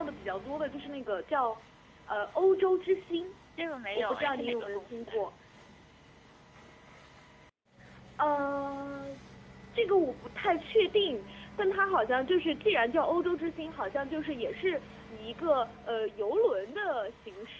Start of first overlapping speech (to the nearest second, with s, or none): 4 s